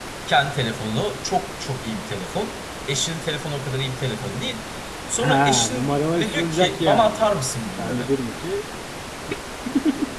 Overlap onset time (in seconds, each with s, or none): 5.2 s